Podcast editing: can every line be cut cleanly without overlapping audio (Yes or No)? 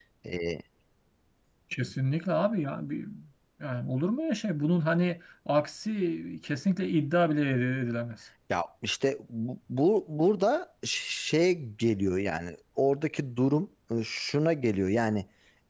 Yes